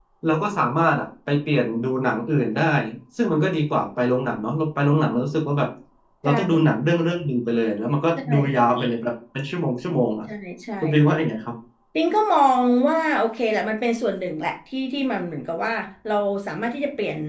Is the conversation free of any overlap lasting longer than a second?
Yes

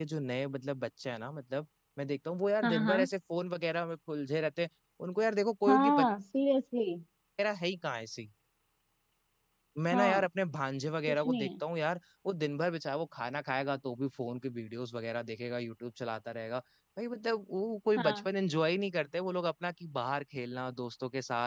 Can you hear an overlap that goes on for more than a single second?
No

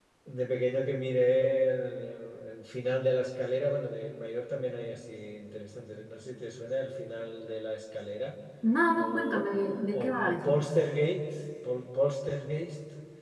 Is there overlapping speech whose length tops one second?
Yes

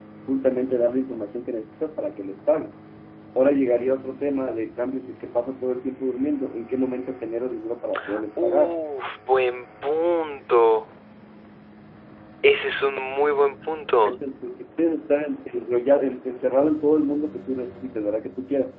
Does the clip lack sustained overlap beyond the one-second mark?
Yes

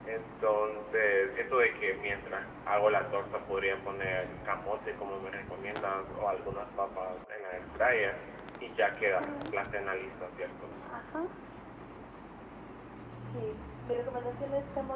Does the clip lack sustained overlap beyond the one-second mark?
Yes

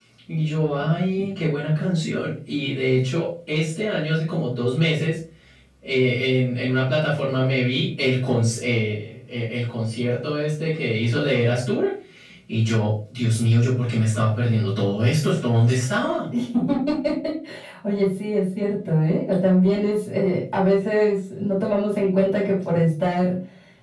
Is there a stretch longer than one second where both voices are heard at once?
No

